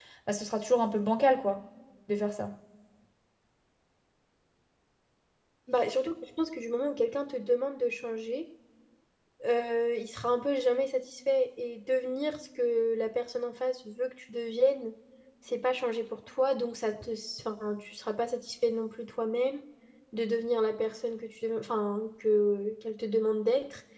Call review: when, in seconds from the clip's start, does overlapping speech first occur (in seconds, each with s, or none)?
none